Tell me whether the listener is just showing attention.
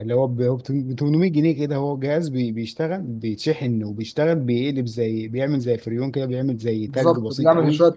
No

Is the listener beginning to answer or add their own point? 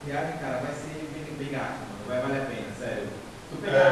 No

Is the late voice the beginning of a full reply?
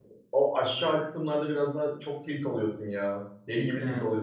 No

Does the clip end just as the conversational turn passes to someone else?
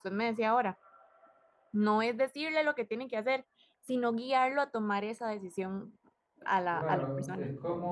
Yes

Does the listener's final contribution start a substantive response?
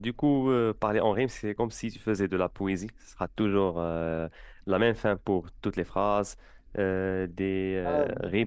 No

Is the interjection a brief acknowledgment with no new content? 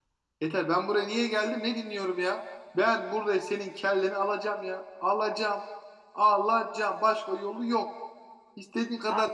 Yes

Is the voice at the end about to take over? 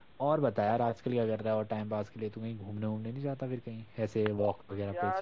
Yes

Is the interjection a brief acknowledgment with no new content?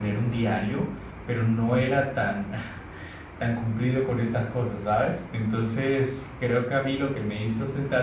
Yes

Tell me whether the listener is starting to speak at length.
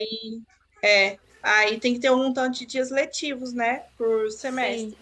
No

